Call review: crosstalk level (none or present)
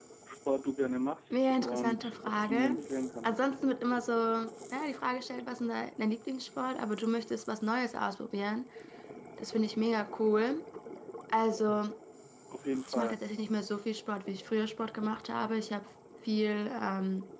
present